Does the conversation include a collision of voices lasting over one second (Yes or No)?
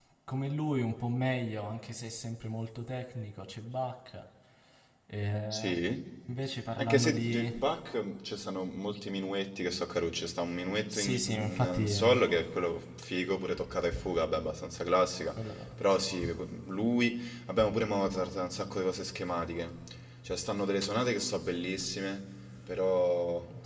Yes